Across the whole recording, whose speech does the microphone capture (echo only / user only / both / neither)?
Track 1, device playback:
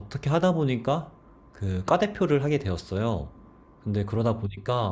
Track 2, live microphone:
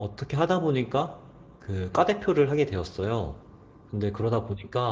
echo only